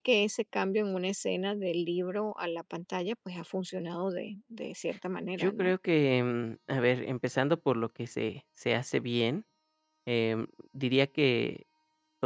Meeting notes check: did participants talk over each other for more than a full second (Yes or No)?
No